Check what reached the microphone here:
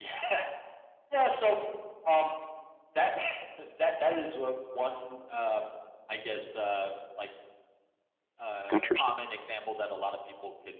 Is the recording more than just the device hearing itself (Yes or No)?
Yes